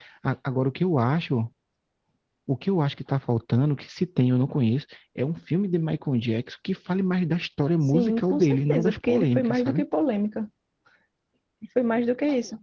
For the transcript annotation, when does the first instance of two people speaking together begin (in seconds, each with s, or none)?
7.8 s